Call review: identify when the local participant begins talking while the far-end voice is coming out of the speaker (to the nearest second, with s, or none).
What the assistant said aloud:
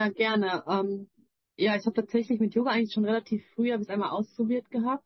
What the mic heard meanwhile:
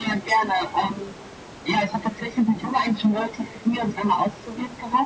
none